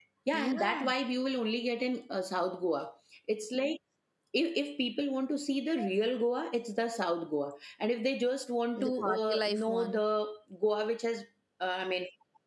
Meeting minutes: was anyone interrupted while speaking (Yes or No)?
Yes